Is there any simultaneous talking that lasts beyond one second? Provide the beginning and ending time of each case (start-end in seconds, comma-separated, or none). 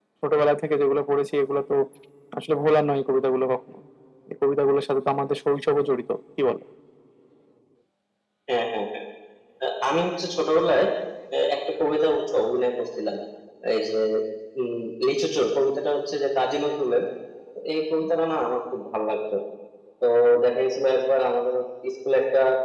none